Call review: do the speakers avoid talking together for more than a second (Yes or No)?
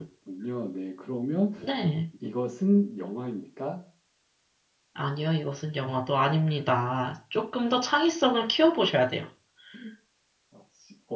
Yes